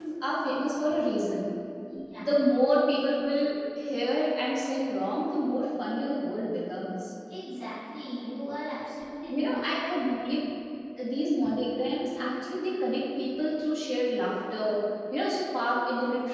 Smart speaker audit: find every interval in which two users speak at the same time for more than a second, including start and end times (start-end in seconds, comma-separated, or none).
none